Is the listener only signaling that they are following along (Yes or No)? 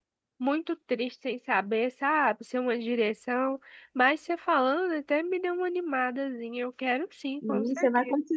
No